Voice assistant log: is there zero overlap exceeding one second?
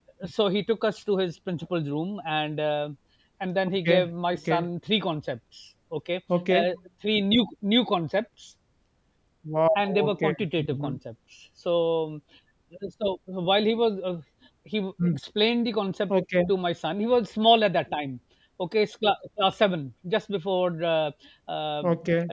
No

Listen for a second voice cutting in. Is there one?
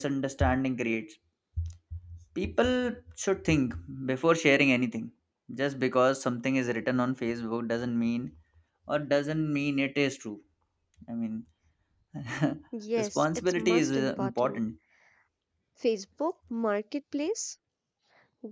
Yes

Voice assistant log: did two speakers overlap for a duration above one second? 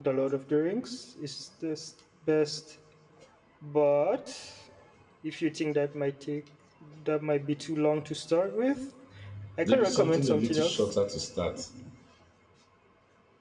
Yes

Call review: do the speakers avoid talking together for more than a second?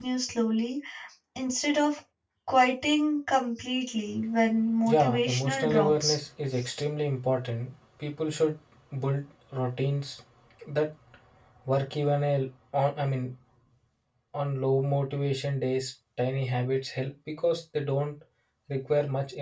No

